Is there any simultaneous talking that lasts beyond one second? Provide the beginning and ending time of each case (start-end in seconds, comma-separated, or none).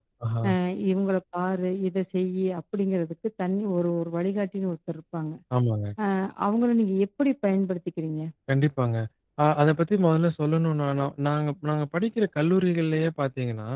none